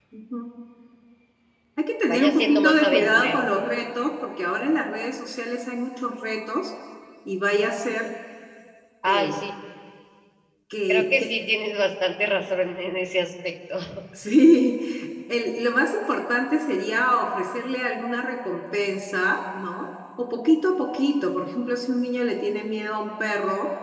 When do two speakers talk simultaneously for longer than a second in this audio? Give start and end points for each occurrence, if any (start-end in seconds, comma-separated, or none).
2.1-3.5